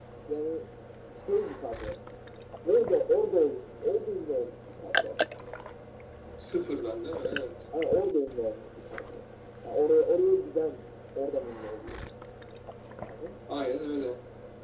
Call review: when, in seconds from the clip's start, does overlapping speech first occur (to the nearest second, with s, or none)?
none